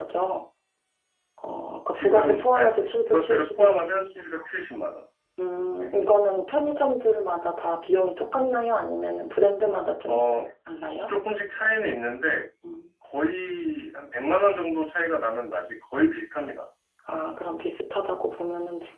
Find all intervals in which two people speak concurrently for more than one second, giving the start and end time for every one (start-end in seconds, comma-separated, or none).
1.9-4.3